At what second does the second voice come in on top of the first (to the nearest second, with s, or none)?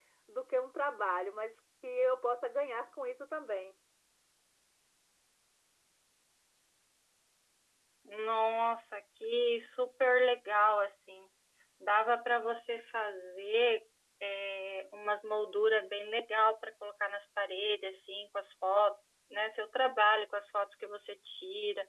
none